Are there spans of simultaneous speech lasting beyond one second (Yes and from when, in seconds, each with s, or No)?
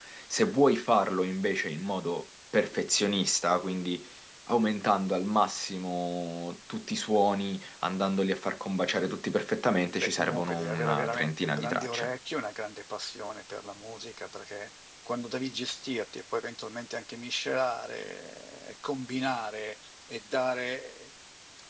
Yes, from 10.0 s